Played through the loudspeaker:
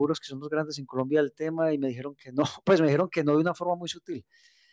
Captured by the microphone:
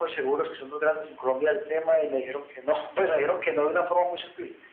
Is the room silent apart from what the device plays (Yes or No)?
Yes